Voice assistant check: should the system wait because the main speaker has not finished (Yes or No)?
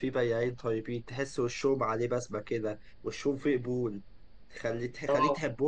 Yes